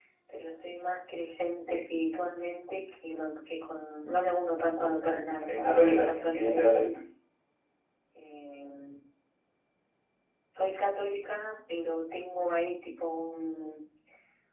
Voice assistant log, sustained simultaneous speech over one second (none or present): present